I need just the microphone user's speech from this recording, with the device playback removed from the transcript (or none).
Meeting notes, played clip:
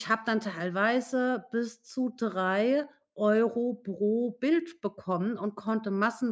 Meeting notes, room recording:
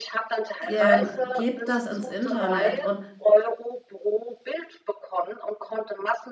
ähm, gebt das ins Internet und